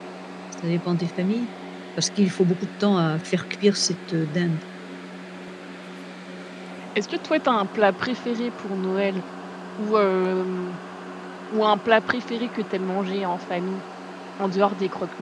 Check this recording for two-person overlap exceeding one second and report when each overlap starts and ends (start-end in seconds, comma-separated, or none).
none